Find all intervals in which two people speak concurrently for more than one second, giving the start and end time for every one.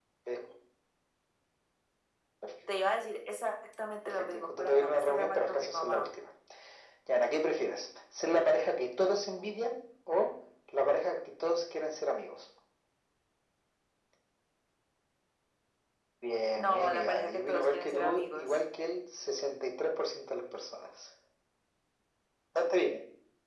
4.0-6.0, 16.6-18.6

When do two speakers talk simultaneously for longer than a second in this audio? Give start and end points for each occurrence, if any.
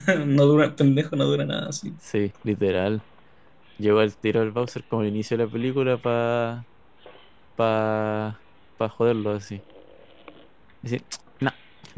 none

